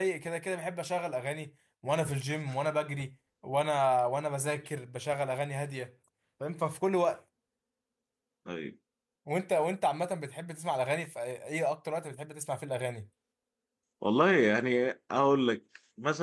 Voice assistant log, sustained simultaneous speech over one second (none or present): none